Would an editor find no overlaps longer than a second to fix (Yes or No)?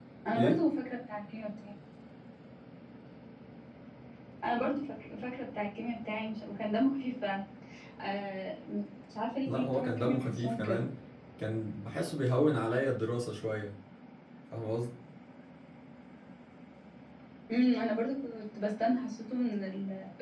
No